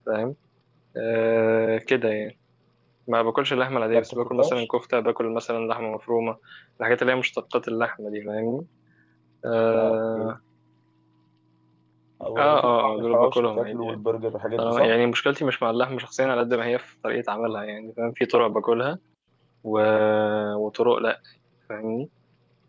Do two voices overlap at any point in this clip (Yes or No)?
Yes